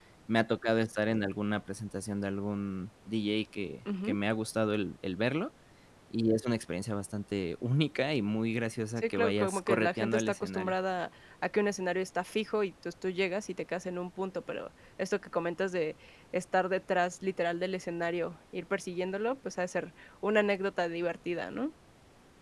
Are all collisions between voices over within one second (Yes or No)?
No